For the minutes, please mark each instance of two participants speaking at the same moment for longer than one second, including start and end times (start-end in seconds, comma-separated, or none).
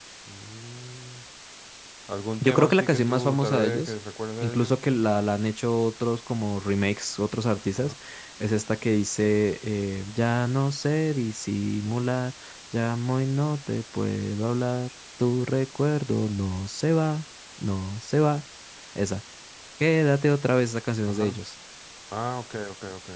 2.4-3.9